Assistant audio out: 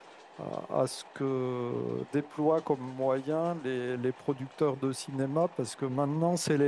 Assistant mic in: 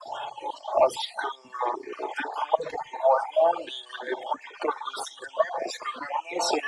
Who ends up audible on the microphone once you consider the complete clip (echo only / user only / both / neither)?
echo only